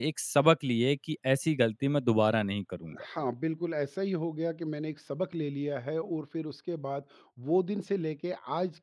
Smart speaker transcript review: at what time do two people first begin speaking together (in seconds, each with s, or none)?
none